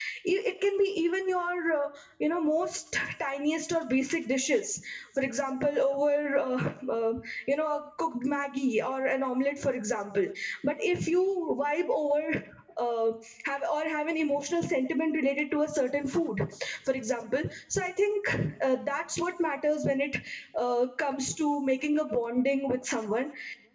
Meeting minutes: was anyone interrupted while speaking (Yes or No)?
No